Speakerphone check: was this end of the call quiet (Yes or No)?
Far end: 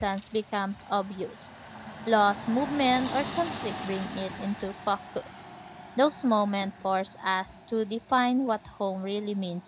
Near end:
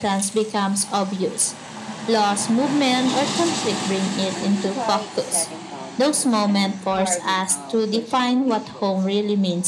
No